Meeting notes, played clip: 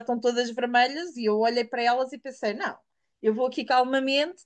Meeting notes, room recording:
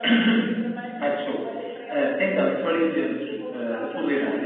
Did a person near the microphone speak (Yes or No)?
Yes